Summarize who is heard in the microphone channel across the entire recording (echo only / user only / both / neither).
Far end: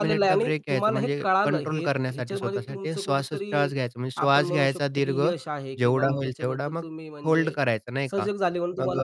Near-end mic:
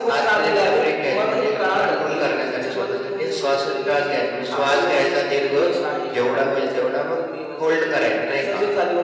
echo only